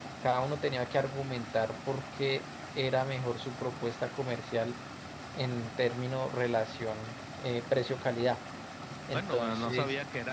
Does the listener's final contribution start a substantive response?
Yes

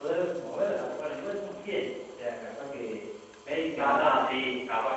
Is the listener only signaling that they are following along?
No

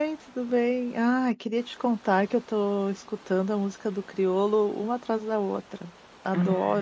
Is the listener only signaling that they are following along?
No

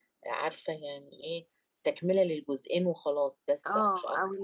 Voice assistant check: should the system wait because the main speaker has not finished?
No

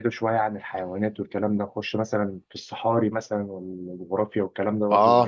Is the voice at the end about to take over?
Yes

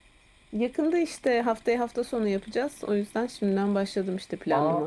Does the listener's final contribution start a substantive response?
Yes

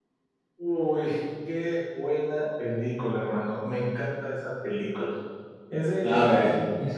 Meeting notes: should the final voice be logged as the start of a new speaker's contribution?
No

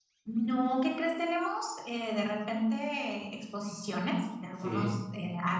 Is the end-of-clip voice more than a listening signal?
No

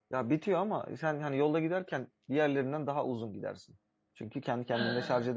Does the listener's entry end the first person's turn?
No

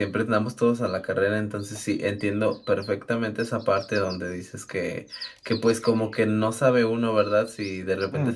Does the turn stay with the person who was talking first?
Yes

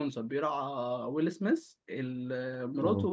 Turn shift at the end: No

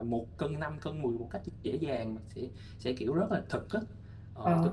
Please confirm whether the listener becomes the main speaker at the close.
No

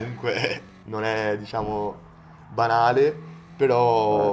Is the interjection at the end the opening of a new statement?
No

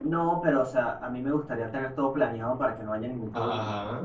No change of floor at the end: Yes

